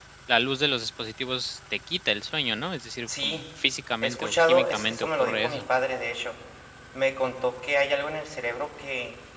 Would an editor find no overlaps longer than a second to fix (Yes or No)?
No